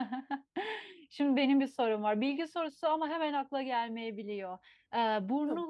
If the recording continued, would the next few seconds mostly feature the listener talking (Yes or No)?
No